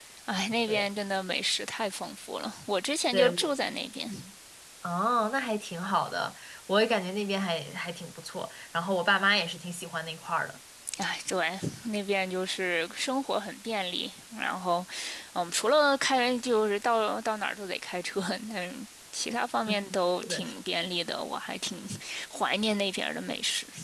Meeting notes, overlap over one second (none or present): none